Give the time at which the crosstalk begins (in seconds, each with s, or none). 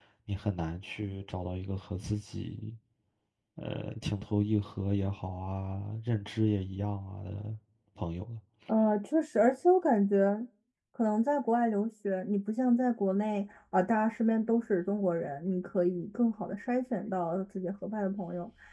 none